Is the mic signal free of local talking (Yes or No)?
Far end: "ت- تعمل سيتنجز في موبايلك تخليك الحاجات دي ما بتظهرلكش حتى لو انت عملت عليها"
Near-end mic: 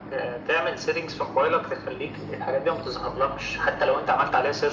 Yes